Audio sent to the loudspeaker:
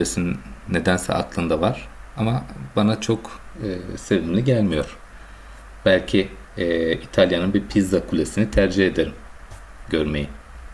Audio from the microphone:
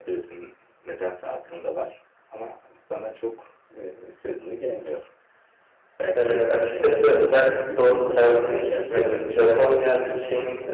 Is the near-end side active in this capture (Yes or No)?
Yes